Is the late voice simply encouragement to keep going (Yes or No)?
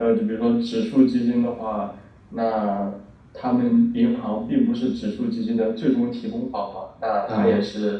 Yes